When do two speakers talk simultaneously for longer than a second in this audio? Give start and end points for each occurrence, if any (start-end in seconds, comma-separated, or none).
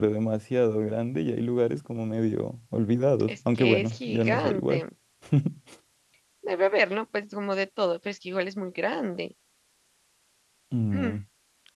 3.3-4.8